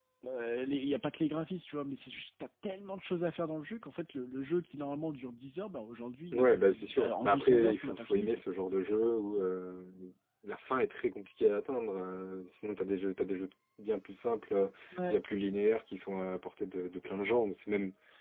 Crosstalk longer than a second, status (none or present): present